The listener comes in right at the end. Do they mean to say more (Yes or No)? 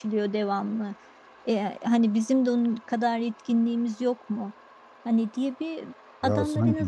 No